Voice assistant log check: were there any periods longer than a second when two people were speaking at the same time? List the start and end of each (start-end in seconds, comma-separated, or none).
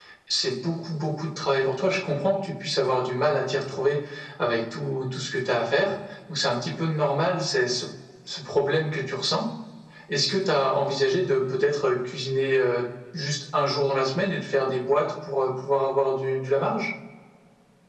none